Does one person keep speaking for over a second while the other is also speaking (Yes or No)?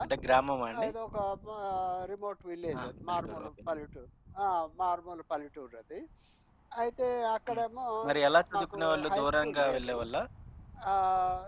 Yes